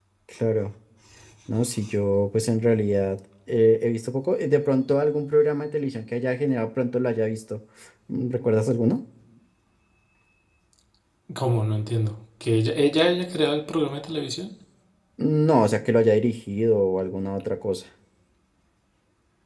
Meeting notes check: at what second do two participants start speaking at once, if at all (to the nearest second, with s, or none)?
none